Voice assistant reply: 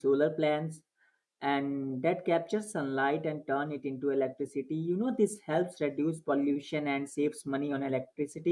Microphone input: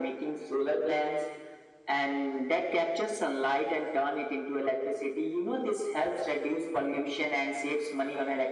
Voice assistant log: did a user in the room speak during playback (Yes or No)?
No